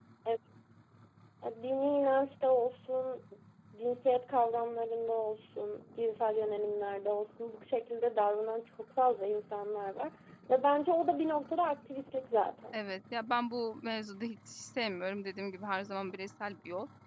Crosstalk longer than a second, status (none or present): none